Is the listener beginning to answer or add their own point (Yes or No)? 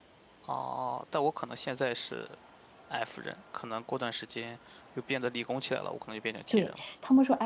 Yes